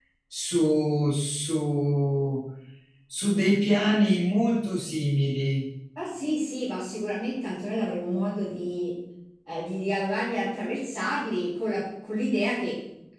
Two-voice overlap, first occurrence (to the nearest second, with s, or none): none